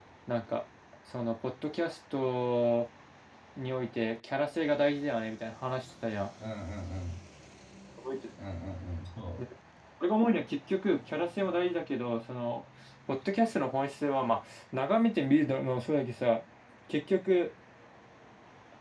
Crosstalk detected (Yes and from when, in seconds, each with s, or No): No